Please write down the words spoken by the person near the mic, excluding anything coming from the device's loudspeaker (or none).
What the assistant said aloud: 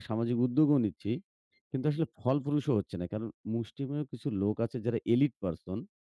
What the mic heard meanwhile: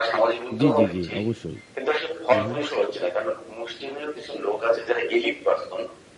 জি, জি, জি। অবশ্যই। হু, হু।